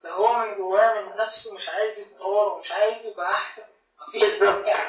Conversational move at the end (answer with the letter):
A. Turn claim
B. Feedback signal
B